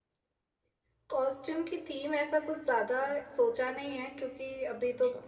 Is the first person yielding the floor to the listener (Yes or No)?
No